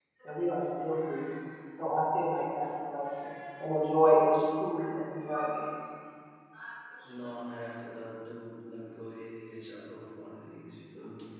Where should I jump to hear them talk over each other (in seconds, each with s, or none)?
none